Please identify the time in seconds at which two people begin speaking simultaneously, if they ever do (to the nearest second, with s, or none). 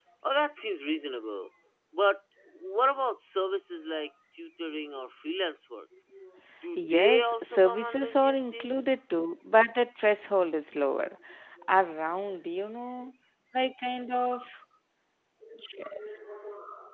7 s